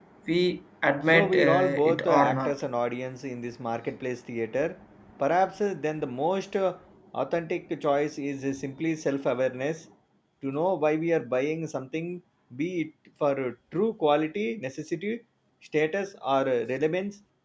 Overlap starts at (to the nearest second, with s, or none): 1 s